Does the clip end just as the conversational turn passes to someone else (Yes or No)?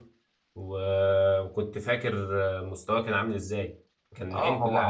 Yes